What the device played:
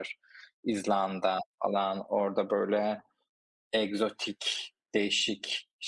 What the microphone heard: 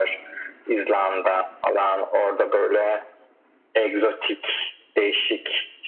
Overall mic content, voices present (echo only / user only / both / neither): echo only